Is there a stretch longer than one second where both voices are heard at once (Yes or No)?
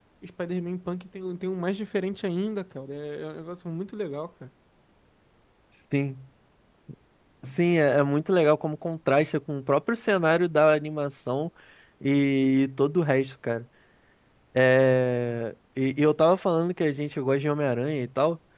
No